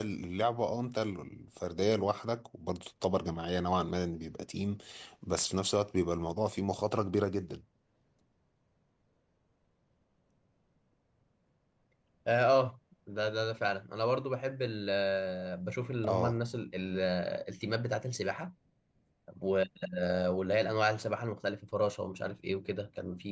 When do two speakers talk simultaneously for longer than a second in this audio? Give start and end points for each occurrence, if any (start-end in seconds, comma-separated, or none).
none